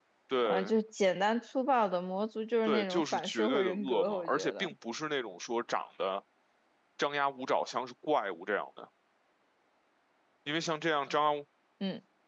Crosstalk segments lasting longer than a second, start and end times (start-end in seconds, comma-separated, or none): 2.7-4.7